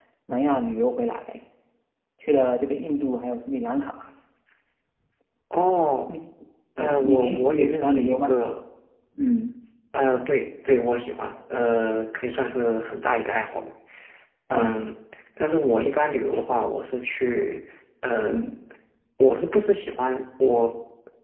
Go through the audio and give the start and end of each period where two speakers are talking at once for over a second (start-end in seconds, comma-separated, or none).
6.8-8.3